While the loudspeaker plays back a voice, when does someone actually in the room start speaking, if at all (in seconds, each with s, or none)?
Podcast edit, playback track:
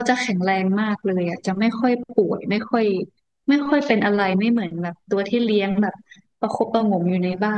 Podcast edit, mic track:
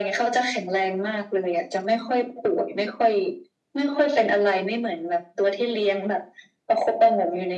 none